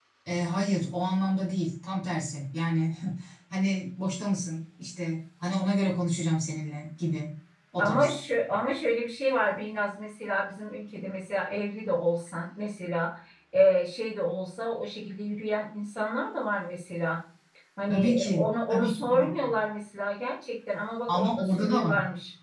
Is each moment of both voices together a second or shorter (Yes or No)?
No